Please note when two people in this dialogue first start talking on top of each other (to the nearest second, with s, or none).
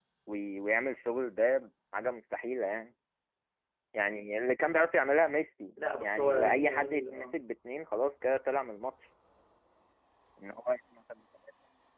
6 s